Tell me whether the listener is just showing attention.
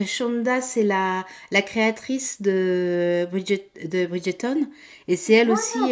Yes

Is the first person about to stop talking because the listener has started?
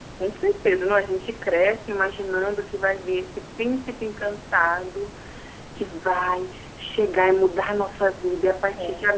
No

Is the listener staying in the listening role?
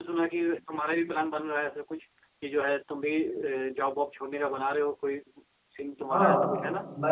No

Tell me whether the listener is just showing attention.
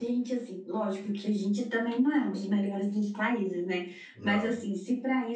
Yes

